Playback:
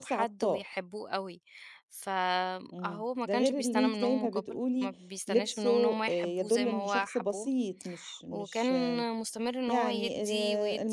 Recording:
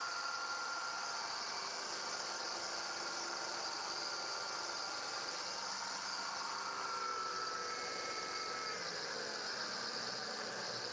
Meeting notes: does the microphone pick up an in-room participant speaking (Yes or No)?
No